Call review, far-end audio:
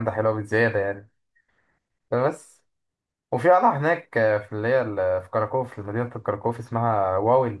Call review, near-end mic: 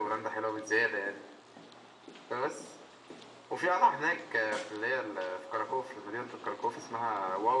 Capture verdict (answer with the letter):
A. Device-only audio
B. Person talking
A